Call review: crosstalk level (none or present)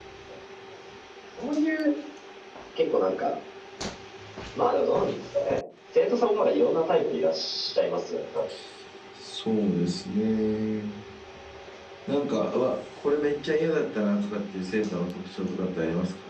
none